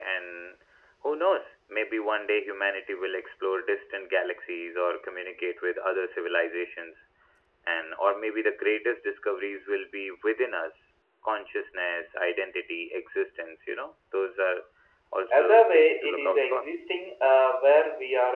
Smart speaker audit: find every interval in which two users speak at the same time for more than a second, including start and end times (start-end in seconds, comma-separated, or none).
15.3-16.7